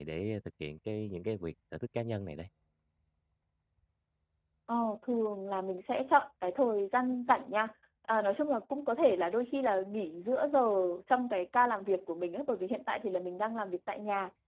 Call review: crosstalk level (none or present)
none